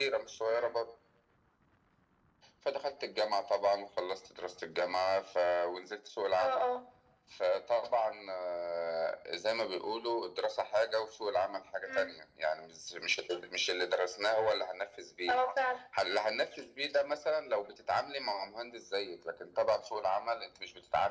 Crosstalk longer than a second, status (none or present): none